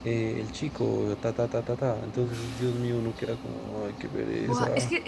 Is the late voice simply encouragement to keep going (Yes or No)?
No